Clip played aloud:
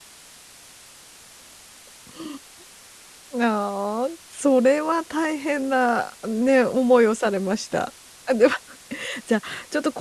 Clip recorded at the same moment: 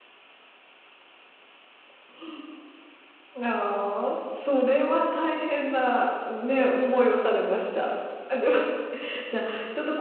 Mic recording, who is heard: echo only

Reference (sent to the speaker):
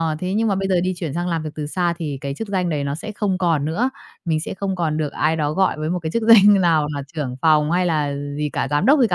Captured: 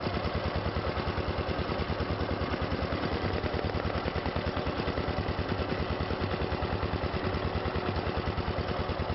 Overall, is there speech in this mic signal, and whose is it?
neither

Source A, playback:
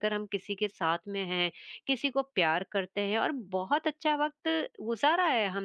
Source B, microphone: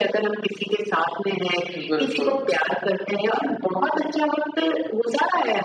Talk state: both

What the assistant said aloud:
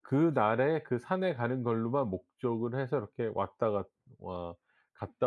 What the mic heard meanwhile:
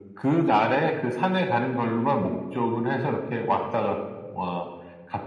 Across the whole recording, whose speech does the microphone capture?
echo only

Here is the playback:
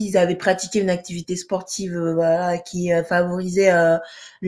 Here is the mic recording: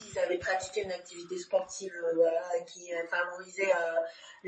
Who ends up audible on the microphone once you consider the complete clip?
echo only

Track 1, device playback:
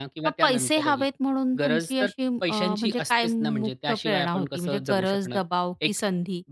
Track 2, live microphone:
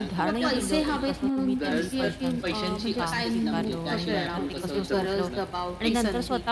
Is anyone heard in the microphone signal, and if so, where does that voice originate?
both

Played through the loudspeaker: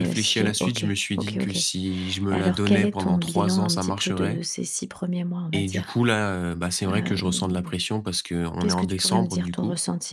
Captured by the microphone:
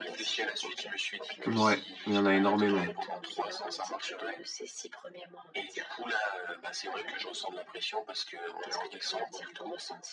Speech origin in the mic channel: both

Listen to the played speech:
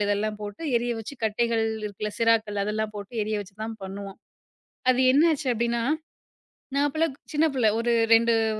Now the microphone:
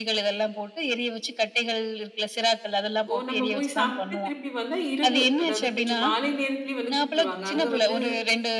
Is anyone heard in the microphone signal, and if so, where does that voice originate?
both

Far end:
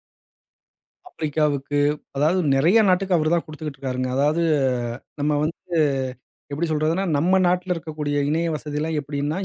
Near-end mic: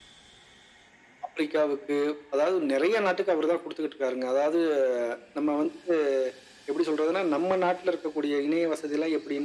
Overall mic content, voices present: echo only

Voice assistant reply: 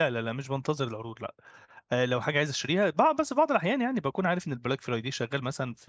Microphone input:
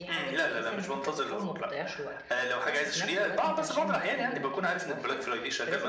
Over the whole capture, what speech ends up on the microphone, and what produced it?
both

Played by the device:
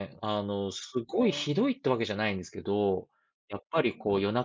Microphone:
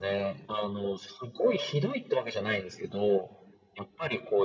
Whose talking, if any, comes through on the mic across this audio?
echo only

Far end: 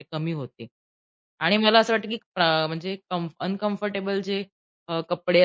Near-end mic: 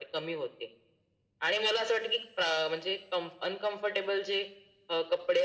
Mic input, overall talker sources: echo only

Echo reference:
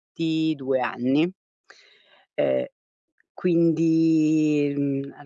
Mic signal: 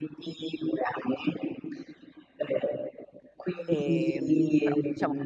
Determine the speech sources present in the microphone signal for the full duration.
both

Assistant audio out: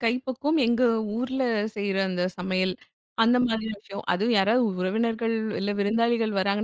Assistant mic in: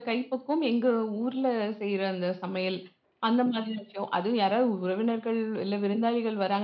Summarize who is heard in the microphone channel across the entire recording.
echo only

